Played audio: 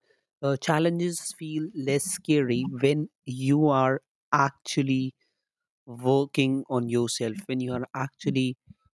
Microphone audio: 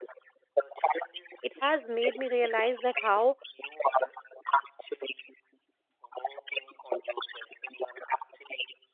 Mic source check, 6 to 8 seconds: echo only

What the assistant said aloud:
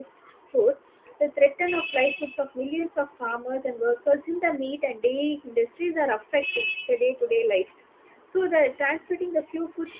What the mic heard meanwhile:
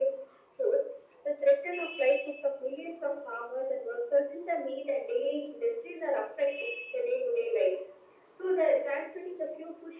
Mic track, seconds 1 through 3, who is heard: echo only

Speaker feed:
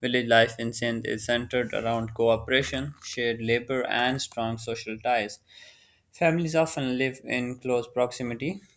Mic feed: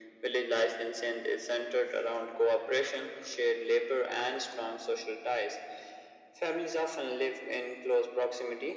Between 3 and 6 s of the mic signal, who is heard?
echo only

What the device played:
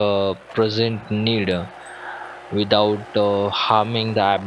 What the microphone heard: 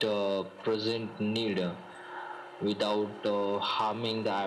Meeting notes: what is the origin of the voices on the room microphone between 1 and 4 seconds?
echo only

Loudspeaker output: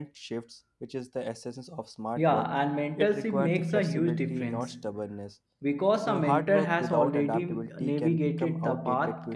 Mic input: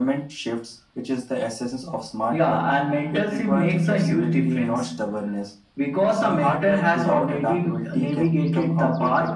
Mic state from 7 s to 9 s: echo only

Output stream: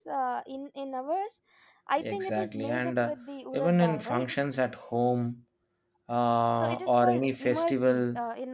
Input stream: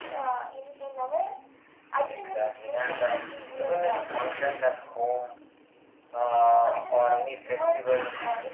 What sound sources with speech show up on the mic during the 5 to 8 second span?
echo only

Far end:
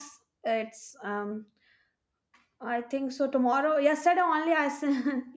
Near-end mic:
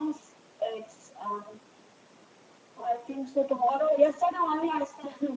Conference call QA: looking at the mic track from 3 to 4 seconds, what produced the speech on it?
echo only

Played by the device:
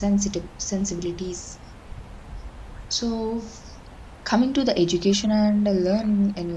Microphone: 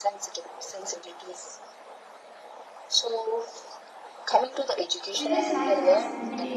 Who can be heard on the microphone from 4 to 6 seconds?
both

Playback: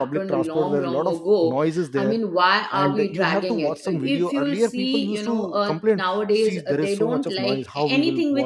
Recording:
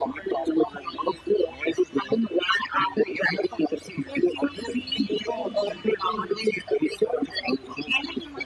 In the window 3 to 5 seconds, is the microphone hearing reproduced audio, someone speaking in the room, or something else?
echo only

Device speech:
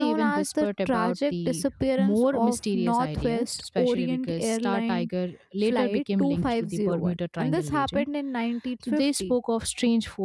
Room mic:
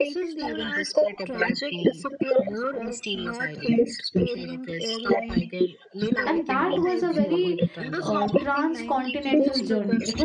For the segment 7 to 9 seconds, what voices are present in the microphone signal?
both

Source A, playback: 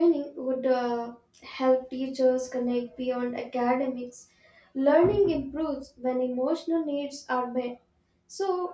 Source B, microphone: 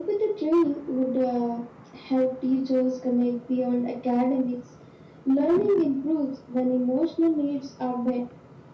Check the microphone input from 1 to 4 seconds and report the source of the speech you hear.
echo only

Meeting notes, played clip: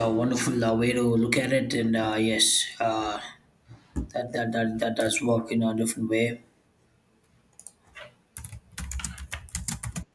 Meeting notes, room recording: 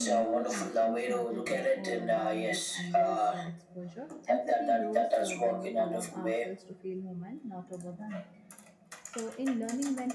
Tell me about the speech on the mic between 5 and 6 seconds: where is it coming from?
both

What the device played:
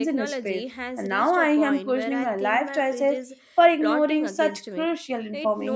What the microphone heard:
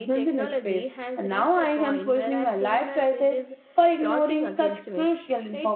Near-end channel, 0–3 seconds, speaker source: echo only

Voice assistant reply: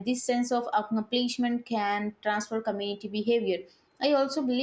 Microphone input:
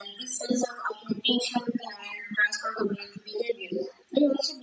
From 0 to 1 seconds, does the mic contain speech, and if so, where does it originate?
echo only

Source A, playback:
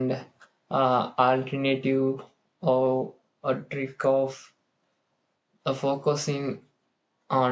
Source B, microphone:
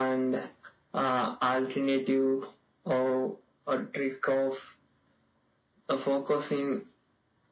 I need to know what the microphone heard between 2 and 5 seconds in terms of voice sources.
echo only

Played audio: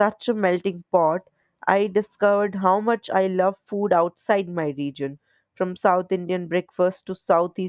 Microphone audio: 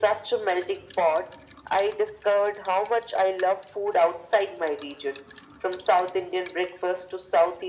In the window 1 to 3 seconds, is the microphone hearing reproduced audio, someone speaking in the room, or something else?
echo only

